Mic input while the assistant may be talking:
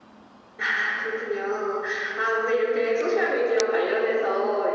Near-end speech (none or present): none